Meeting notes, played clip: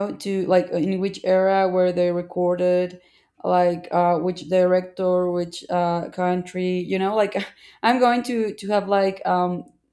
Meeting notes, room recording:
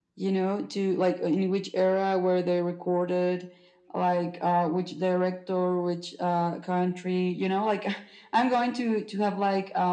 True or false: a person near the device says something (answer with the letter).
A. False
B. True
A